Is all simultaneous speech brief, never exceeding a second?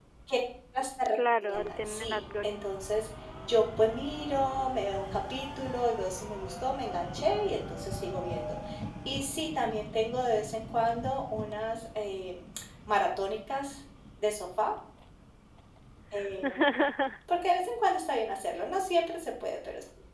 No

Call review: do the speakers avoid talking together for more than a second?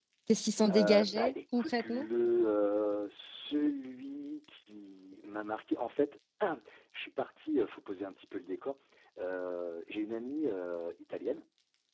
No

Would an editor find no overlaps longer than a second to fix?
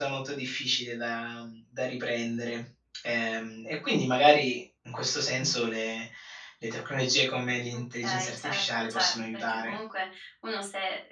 No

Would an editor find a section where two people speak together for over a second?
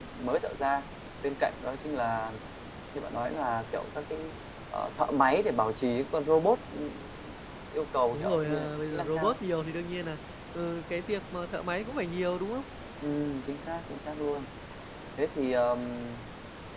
Yes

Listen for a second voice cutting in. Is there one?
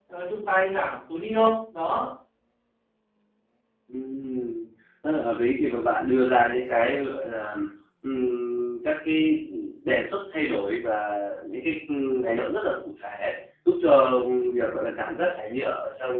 No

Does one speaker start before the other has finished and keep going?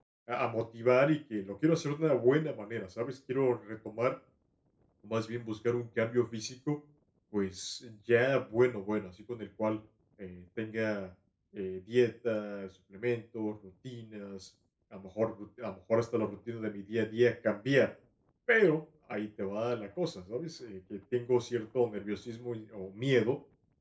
No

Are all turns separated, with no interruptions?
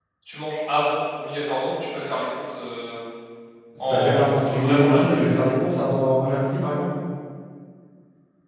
No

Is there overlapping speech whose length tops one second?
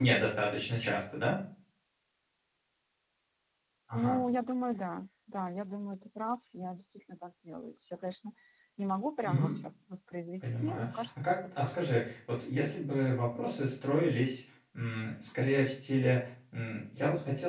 Yes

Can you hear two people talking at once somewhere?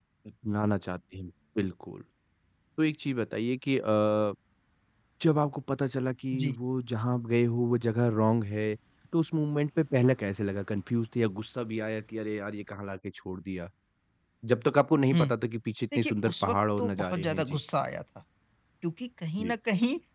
Yes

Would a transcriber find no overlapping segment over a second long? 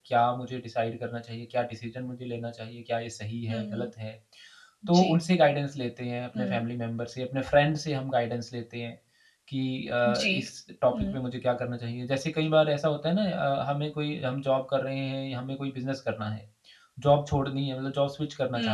Yes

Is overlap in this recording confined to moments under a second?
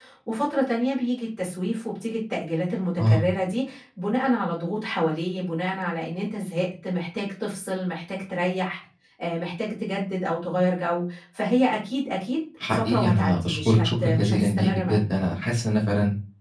No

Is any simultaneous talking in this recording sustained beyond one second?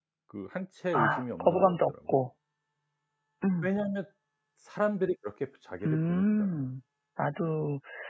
Yes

